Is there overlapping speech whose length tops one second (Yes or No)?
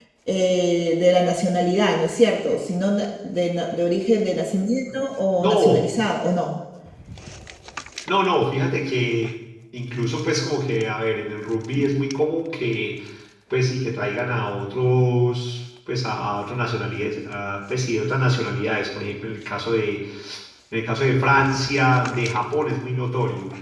No